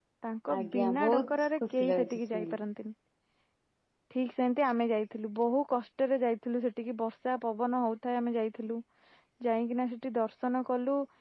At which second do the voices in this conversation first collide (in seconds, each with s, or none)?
0.6 s